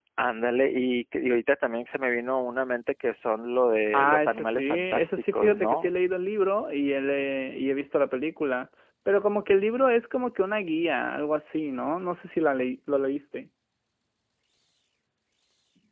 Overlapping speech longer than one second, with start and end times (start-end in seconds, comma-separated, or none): 3.9-5.9